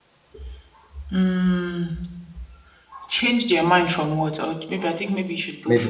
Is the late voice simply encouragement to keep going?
No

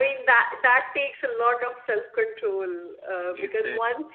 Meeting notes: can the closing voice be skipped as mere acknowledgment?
Yes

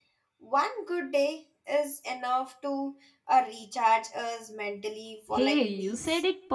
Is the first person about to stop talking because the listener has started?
Yes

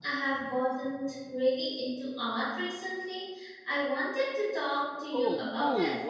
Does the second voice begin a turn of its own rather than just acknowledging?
Yes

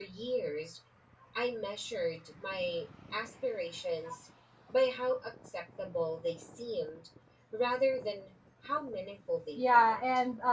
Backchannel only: No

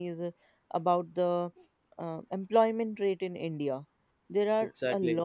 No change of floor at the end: Yes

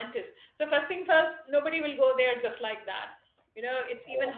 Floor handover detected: No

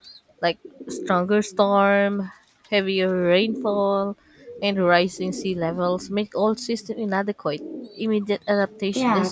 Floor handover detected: Yes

